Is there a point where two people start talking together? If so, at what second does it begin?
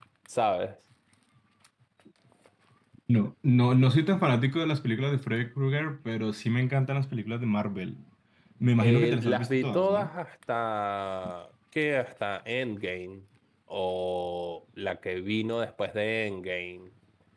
8.8 s

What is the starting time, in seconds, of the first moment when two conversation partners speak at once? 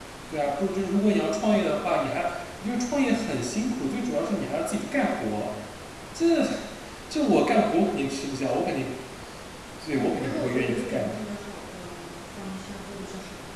9.9 s

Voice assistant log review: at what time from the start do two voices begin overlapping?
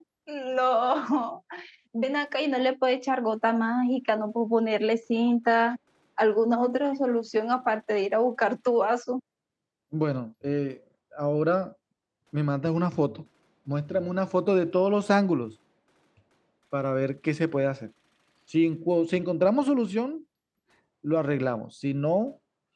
none

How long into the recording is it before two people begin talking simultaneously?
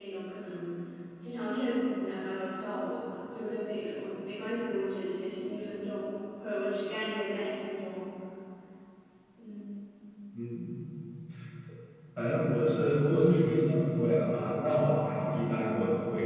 none

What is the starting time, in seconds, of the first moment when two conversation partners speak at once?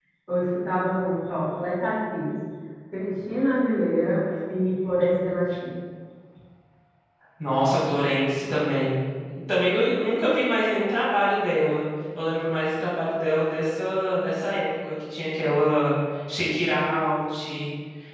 none

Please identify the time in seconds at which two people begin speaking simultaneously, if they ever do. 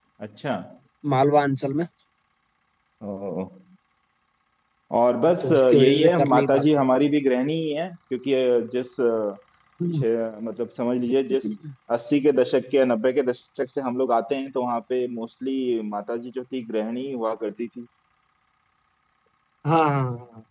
5.4 s

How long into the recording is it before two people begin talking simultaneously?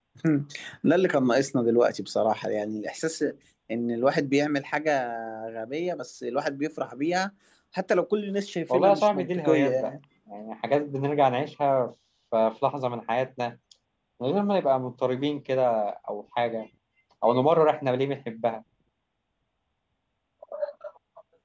8.7 s

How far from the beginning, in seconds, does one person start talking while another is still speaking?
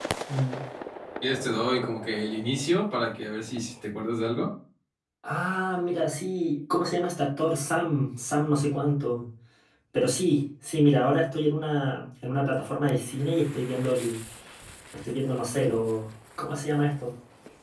none

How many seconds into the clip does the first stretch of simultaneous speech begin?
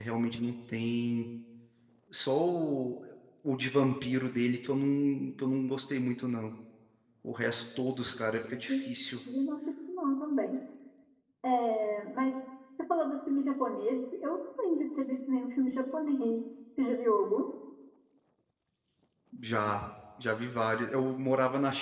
none

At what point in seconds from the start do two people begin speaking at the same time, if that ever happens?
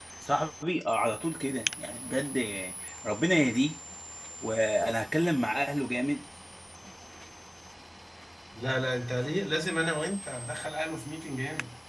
none

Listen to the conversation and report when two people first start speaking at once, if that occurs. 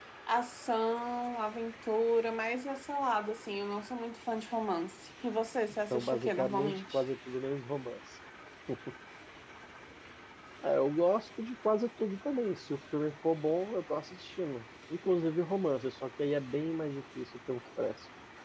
5.7 s

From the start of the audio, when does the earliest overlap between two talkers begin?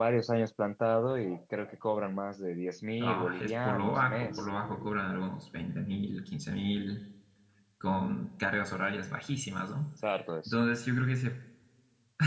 3.0 s

